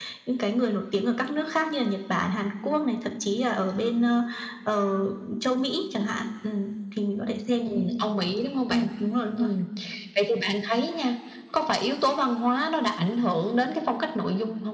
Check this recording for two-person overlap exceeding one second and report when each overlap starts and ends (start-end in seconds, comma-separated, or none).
none